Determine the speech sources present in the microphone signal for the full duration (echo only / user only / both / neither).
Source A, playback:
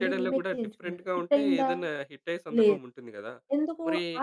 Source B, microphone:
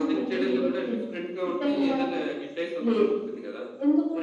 echo only